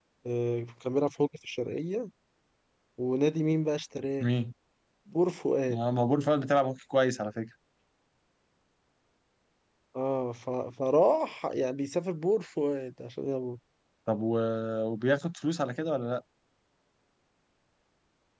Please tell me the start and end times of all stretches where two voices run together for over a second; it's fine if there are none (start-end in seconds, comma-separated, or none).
none